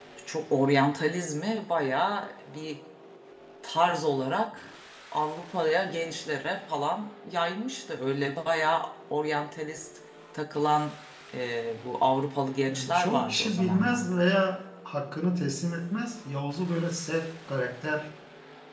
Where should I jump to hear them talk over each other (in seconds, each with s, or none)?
12.7 s